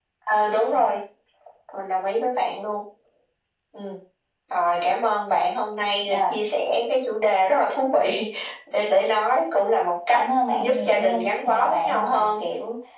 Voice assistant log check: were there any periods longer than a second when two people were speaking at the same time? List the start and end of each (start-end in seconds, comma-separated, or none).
10.1-12.3